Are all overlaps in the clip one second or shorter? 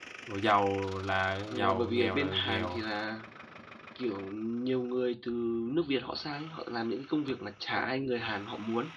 No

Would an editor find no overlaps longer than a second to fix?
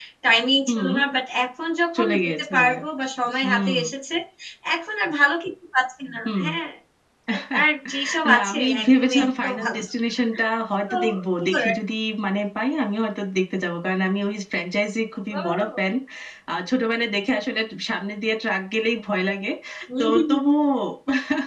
No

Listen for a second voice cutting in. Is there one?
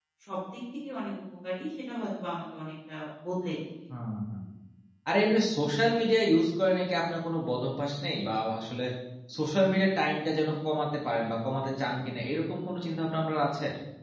No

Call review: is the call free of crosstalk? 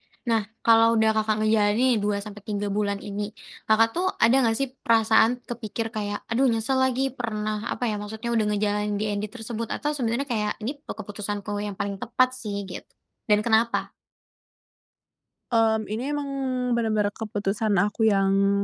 Yes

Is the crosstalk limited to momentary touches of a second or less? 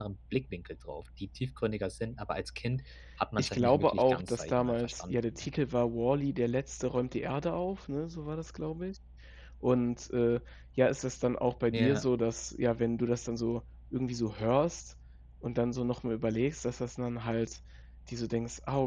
No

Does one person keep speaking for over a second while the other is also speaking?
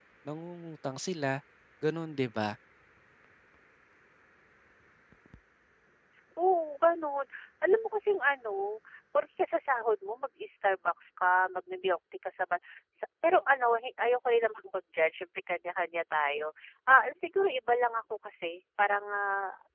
No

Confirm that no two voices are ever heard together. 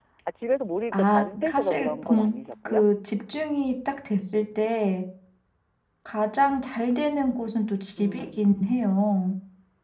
No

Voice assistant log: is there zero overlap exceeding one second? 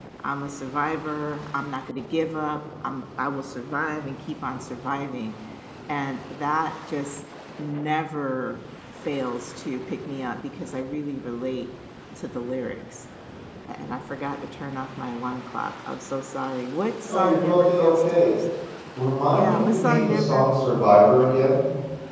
No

